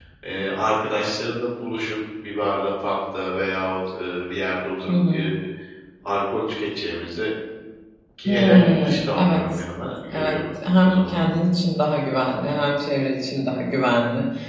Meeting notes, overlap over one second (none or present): present